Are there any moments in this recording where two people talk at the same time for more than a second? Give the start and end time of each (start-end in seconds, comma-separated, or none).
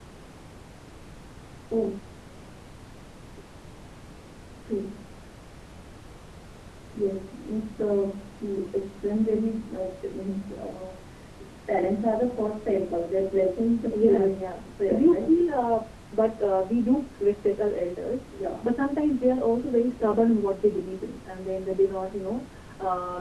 13.9-15.4